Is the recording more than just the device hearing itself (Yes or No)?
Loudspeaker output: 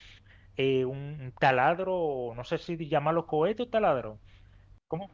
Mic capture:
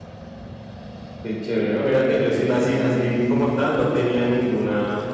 Yes